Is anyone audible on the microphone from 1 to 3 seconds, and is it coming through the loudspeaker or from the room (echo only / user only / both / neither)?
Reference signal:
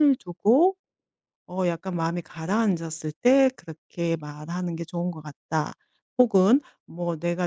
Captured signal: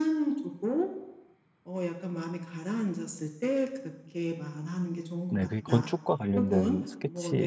echo only